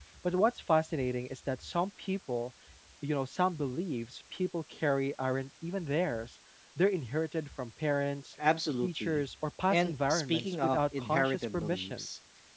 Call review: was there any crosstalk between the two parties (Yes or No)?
Yes